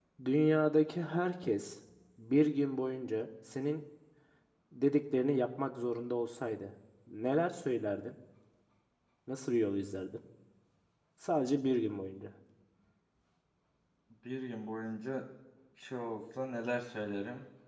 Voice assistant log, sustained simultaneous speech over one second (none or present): none